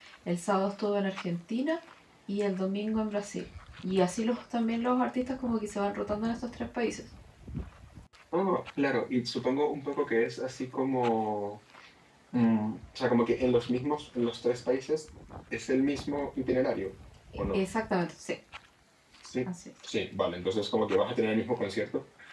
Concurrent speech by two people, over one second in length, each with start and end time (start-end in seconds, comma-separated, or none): none